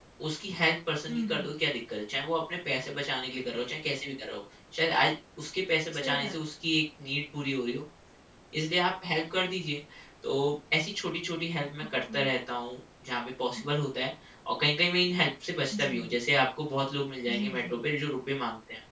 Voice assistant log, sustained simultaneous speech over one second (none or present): none